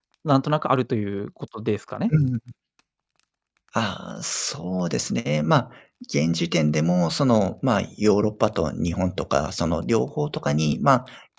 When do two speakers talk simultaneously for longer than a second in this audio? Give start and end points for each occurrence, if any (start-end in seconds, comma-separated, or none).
none